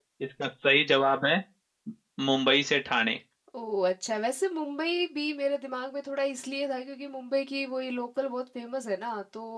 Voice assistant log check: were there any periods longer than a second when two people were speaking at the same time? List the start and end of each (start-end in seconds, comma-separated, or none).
none